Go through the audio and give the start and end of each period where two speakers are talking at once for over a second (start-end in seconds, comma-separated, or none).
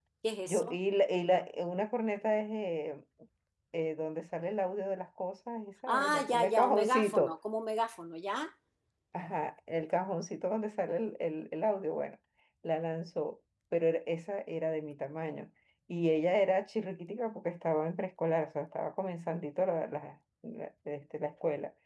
6.0-7.4